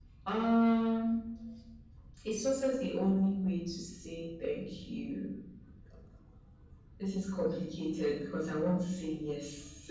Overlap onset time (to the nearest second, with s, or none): none